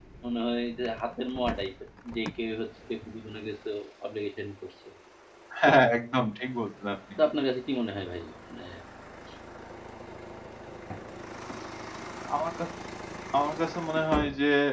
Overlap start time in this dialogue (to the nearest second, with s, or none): none